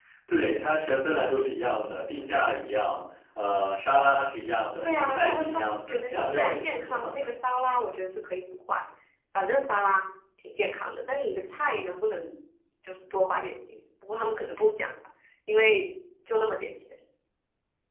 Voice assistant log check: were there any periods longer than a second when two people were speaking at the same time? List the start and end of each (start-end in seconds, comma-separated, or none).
4.8-7.3